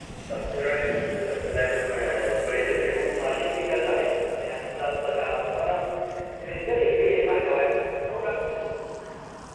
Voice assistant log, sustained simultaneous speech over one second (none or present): none